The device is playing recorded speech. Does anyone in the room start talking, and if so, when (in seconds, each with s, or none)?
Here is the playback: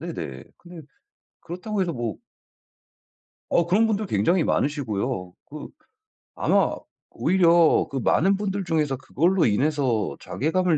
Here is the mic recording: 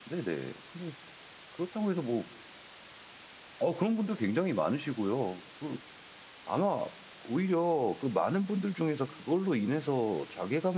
none